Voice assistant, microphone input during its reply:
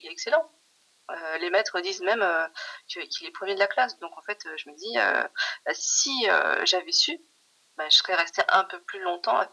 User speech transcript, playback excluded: none

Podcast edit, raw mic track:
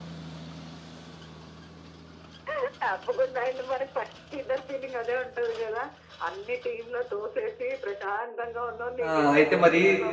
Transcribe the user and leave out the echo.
ఆ! అయితే మరీ

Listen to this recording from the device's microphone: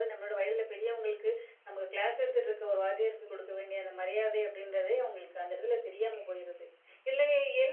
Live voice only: none

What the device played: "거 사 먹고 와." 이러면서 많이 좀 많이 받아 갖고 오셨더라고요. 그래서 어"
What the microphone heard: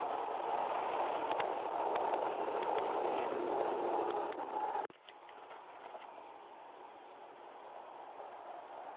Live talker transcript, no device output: none

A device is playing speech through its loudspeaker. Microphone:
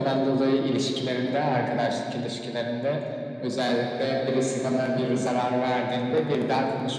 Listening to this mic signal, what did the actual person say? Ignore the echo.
none

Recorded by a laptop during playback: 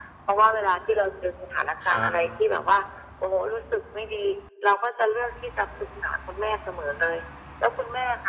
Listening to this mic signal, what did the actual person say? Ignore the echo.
ครับ

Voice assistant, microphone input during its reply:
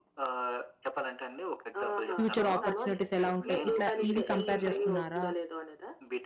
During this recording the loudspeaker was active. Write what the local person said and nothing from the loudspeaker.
ఫ్యూచర్ అపార్చునిటీస్ ఎలా ఉంటాయి? ఇట్లా ఇవి కంపేర్ చేసుకున్నారా?

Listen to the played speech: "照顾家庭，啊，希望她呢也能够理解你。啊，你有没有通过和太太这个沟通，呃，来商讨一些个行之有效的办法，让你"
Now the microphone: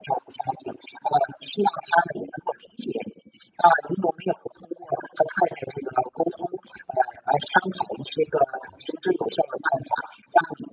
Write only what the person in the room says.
none

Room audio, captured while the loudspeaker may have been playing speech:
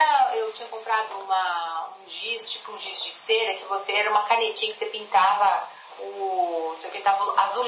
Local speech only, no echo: none

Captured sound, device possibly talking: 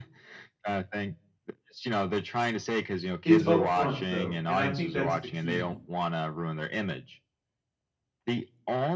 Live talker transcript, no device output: it's upfront, though, and I think that's the key

